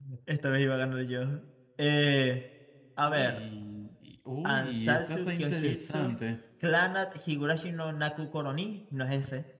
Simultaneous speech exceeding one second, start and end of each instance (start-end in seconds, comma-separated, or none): 4.4-6.2